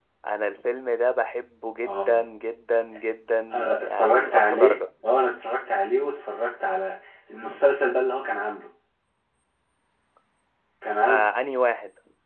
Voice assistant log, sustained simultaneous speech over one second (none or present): present